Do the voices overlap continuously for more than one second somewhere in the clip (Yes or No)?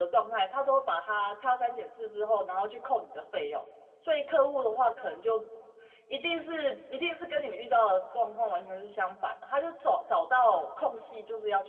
No